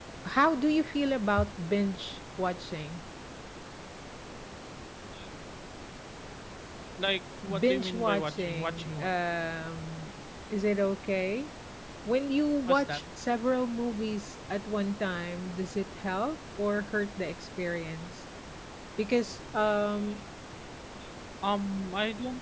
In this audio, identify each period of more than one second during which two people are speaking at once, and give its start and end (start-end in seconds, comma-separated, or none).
7.6-9.1